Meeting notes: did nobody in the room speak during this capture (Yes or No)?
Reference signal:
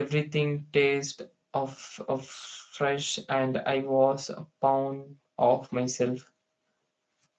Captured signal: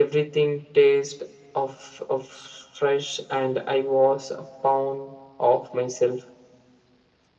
Yes